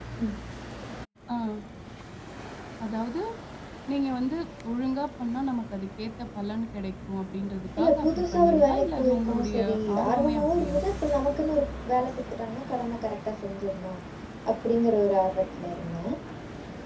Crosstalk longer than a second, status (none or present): present